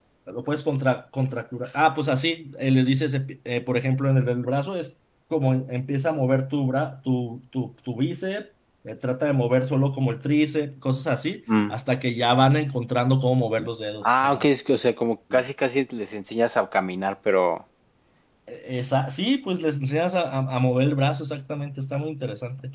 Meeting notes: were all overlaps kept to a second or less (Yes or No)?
Yes